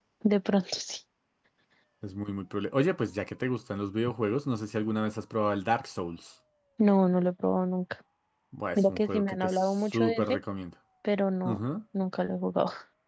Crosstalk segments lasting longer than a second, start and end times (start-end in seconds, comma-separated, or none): 8.8-10.4